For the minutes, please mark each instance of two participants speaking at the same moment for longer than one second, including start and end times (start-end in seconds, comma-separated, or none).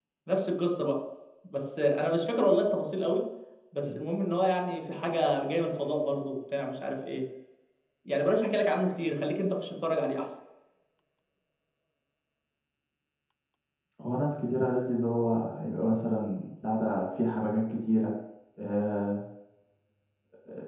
none